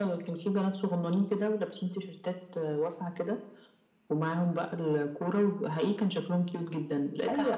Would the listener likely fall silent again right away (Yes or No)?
Yes